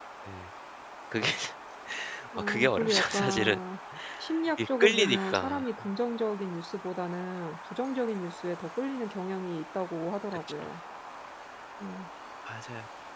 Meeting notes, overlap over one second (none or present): present